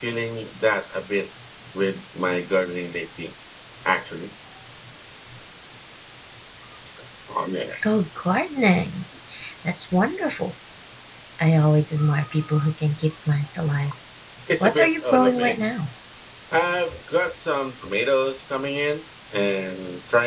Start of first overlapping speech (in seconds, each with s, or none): 14.6 s